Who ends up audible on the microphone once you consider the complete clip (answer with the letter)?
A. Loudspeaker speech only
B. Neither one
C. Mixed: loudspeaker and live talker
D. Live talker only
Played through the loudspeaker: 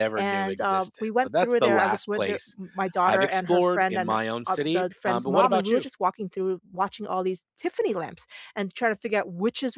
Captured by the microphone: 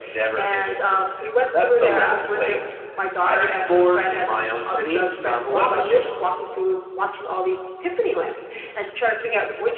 A